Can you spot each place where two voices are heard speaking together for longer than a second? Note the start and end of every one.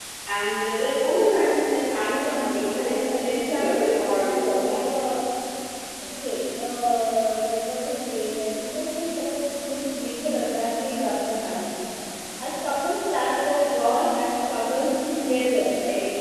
2.1-4.8

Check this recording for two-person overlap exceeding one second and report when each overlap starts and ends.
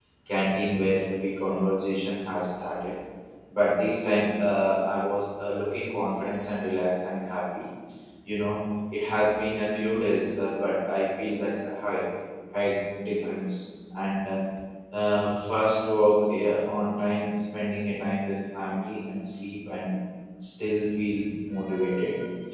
none

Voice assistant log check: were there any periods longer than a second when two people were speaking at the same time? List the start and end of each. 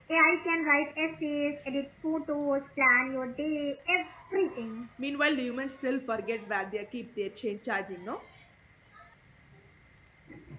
none

